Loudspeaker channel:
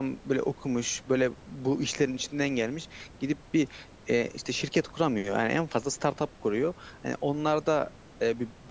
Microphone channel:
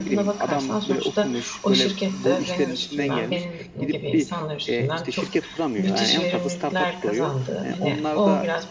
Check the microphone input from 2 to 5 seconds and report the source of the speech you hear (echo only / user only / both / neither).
both